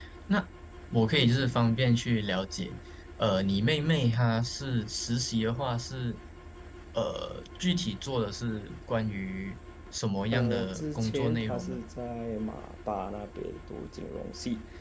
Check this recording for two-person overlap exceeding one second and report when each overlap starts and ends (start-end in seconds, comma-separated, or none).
10.3-11.8